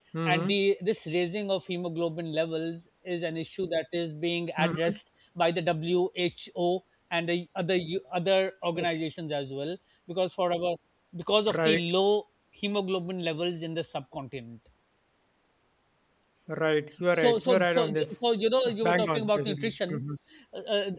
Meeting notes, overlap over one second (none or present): present